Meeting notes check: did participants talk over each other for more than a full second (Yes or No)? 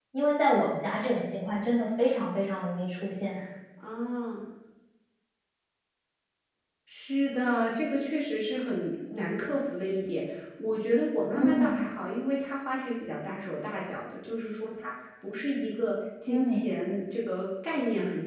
No